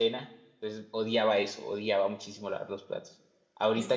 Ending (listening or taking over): listening